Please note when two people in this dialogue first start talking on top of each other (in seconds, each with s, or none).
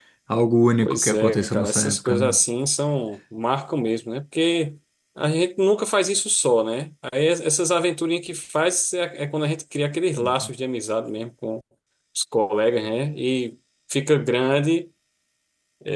0.8 s